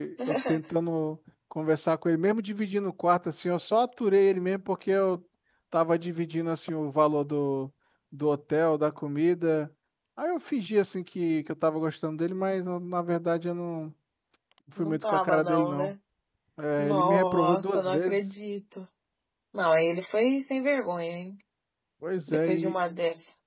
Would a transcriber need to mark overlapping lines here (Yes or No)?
Yes